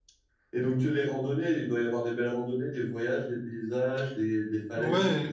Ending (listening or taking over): taking over